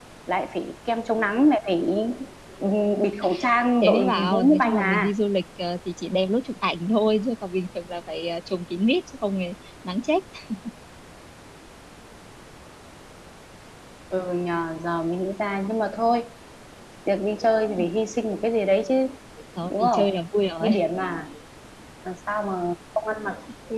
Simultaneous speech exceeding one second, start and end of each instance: 3.8-5.1

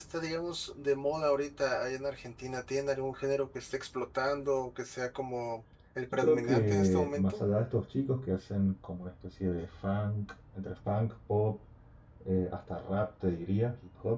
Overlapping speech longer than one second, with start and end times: 6.1-7.4

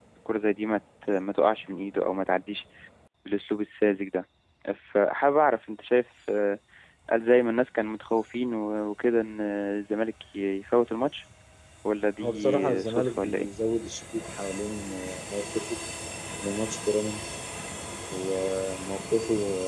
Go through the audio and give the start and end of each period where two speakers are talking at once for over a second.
12.2-13.5

